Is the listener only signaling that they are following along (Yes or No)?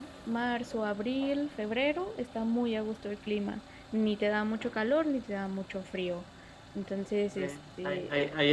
No